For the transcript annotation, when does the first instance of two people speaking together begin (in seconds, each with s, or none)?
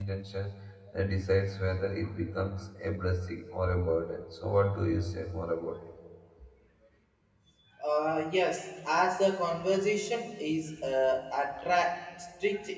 none